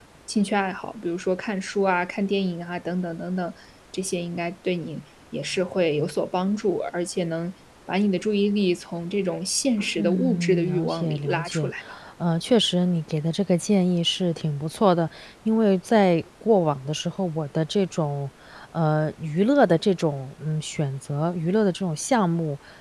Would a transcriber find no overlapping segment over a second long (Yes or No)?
No